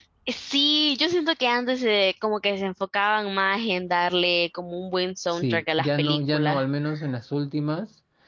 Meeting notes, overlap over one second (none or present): present